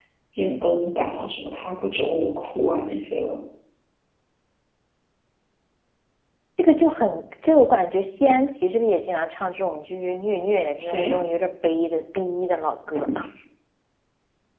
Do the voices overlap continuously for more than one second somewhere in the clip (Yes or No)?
No